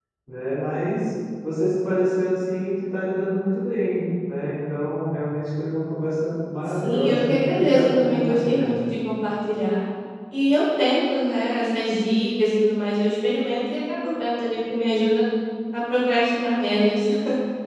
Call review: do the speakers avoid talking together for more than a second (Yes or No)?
No